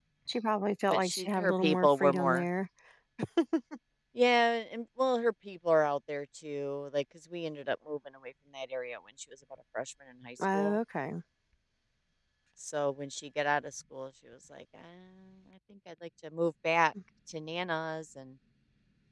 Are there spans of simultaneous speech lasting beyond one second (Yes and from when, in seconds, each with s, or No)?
Yes, from 0.9 s